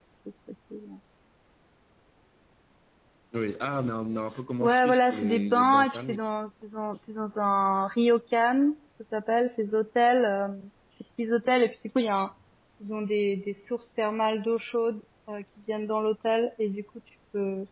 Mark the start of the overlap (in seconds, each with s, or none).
4.6 s